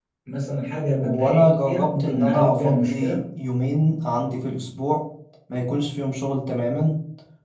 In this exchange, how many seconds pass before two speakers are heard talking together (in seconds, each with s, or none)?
1.0 s